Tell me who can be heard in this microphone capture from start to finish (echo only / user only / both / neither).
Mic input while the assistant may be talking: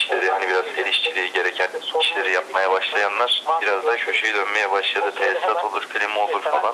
echo only